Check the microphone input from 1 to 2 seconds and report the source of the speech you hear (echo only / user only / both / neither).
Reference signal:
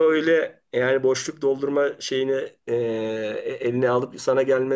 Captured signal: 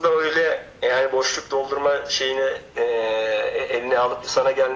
echo only